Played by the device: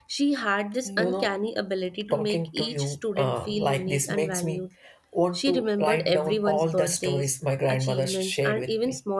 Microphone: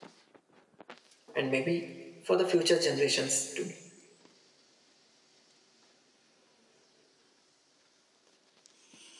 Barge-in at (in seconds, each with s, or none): 1.3 s